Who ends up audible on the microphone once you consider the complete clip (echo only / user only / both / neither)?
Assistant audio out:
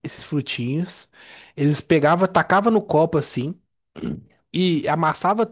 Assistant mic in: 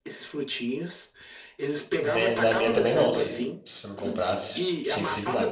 both